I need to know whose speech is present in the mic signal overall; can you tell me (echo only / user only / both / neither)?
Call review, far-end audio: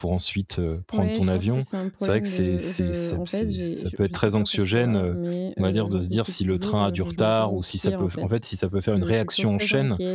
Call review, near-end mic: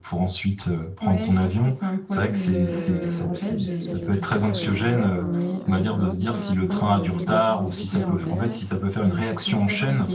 both